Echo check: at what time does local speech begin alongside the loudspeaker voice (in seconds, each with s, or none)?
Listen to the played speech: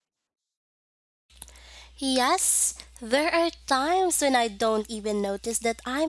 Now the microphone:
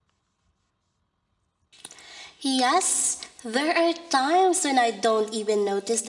none